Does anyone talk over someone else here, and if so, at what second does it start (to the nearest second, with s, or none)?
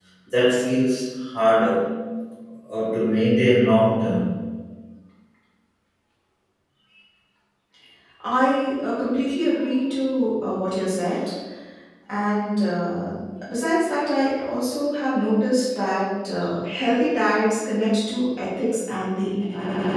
none